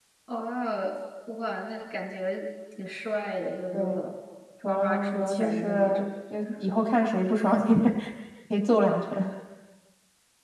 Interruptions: present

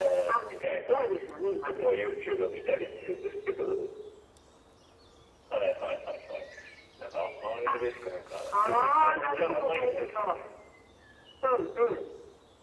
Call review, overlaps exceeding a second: present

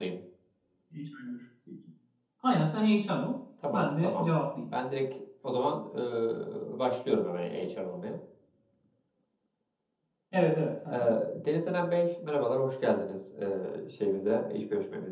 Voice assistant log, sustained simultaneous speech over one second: none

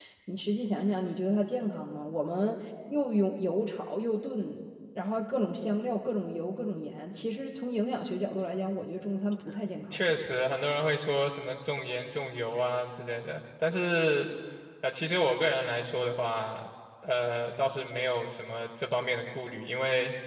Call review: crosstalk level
none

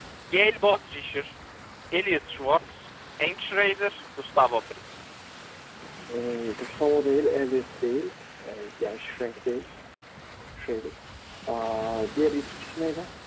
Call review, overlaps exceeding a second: none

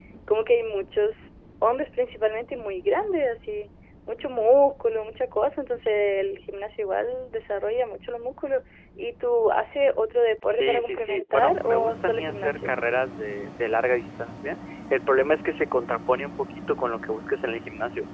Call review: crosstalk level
present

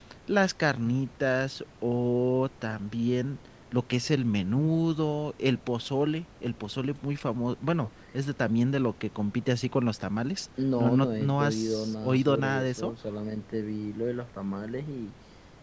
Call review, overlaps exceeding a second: present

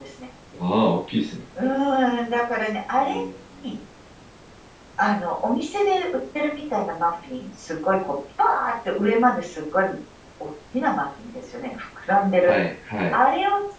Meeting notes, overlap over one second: none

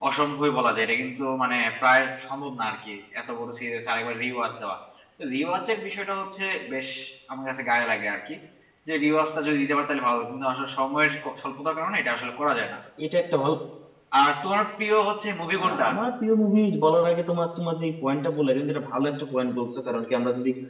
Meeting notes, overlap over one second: none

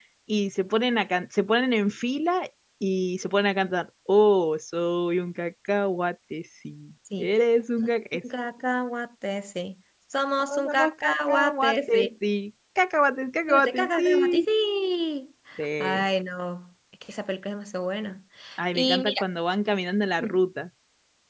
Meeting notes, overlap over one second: present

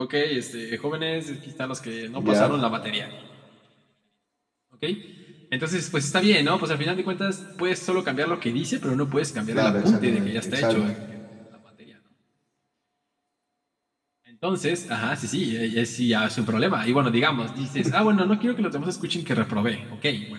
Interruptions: present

